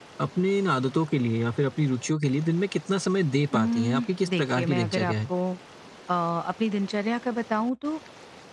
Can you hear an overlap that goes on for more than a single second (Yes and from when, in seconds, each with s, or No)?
Yes, from 3.5 s